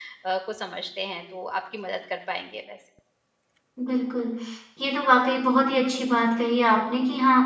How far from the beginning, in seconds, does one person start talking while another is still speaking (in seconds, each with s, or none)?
none